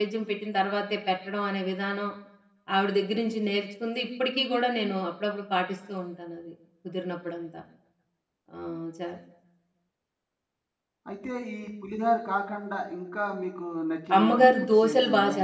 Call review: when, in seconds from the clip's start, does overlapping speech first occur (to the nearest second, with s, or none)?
14 s